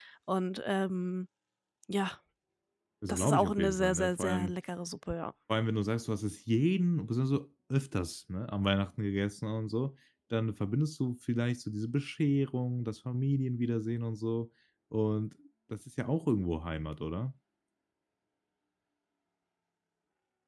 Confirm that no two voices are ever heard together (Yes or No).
No